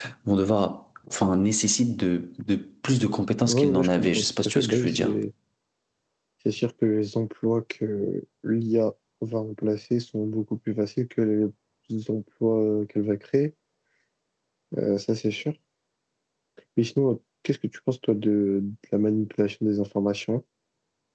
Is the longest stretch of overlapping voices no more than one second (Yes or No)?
No